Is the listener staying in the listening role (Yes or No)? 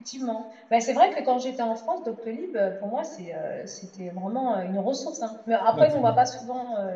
Yes